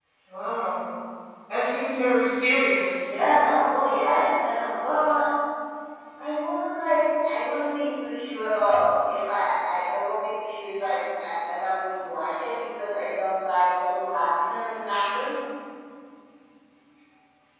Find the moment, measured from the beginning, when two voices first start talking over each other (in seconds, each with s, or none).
none